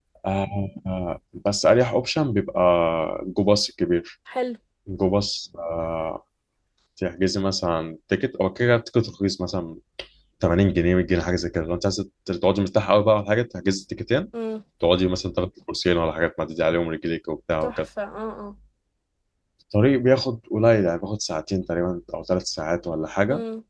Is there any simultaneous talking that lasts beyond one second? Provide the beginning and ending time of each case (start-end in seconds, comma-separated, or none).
none